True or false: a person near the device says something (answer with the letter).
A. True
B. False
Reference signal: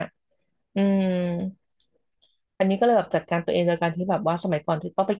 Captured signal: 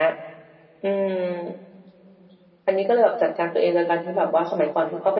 B